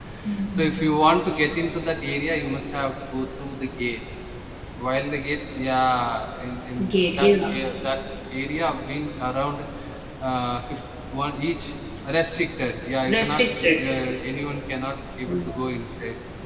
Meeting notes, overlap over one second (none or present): none